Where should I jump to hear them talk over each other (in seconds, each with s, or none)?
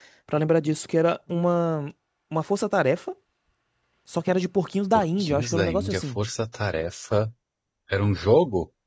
4.9 s